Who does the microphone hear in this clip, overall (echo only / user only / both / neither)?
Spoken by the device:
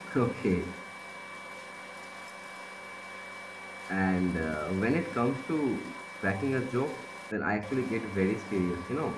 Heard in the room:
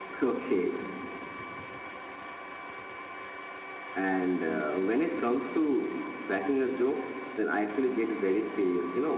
echo only